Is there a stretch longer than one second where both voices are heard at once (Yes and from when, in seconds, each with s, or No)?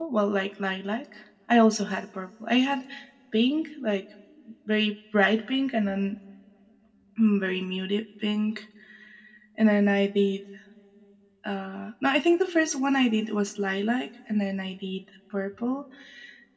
No